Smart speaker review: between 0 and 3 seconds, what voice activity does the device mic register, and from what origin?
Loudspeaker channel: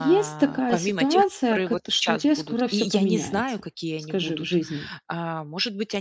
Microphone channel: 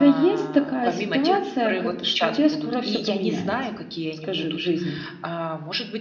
echo only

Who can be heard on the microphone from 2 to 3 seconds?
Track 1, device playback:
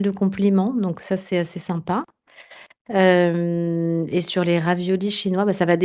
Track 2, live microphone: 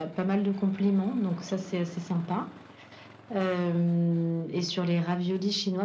echo only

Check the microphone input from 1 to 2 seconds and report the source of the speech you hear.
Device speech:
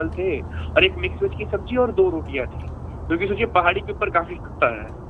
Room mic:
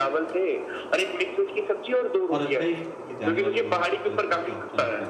echo only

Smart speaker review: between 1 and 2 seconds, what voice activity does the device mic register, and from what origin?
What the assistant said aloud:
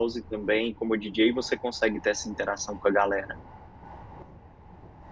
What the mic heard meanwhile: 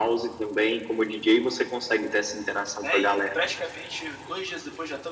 echo only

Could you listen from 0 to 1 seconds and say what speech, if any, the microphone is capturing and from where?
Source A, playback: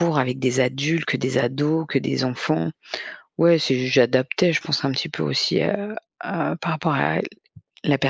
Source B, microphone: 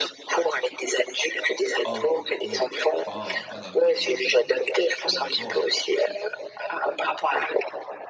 echo only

